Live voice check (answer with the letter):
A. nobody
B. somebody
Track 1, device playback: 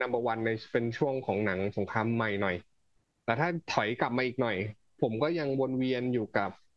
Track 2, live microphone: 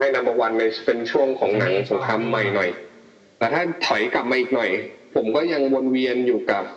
B